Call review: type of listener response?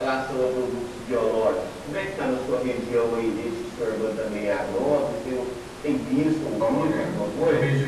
taking over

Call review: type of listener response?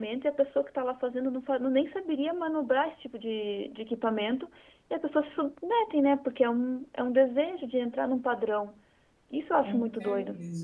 taking over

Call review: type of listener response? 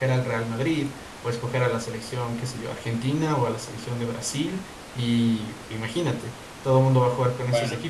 listening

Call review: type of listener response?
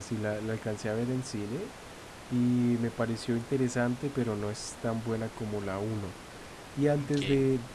listening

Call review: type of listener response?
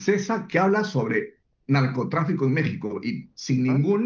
listening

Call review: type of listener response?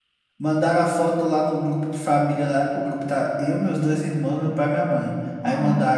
listening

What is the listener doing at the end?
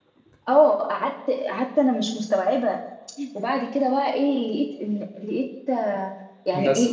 listening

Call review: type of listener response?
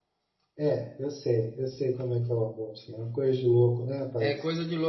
taking over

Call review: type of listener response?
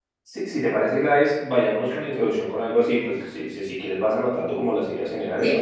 taking over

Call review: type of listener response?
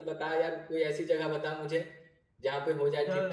taking over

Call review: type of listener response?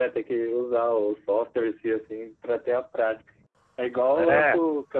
listening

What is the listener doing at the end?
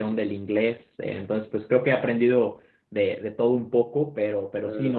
listening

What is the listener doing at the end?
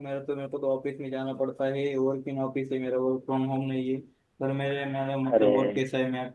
listening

